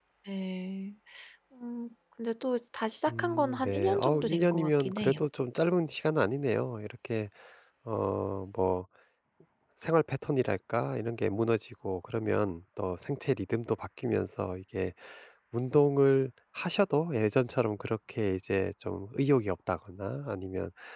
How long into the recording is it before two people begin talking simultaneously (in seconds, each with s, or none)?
3.1 s